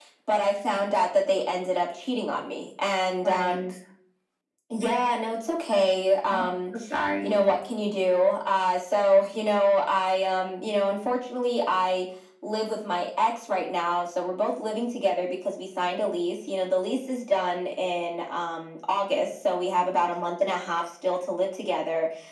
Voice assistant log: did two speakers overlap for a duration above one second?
No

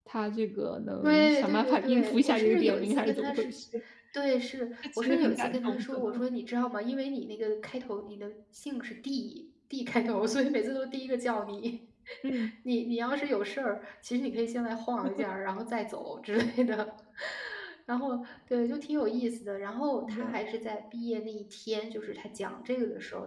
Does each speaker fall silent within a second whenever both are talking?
No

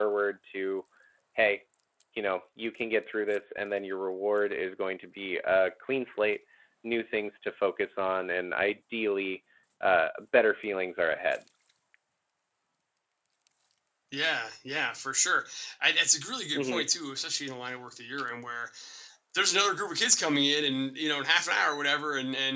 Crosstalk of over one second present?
No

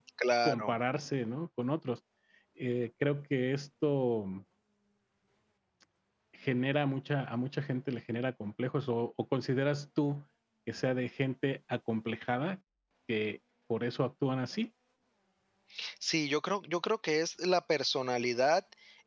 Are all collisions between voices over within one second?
Yes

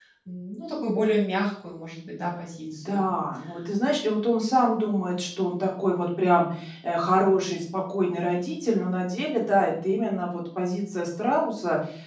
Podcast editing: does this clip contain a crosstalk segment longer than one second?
No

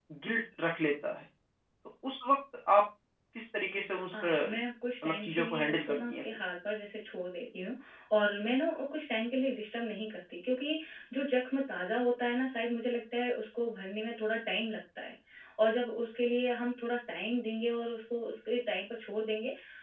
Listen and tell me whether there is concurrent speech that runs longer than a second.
Yes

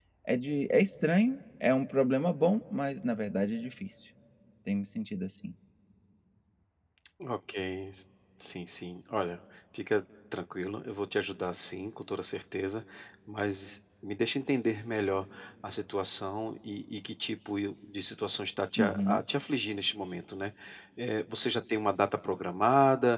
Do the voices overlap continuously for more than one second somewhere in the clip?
No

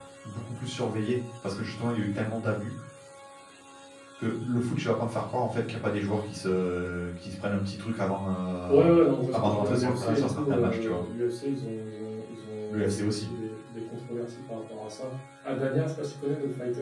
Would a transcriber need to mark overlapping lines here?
Yes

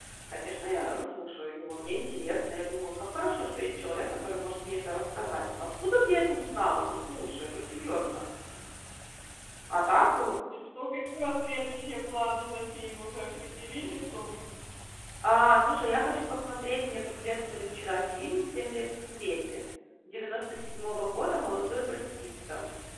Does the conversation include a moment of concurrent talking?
No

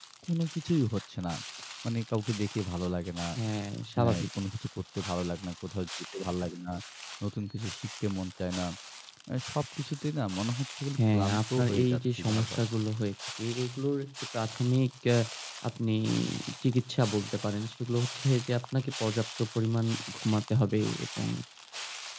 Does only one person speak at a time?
No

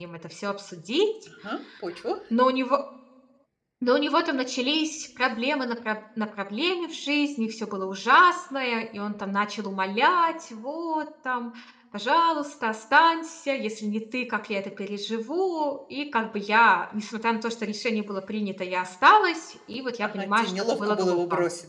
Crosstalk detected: Yes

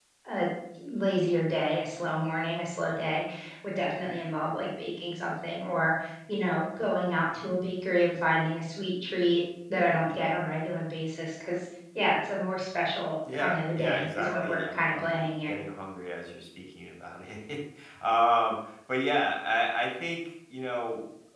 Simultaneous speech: Yes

